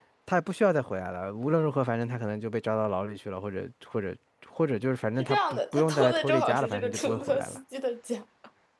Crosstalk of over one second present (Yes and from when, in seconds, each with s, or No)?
Yes, from 5.2 s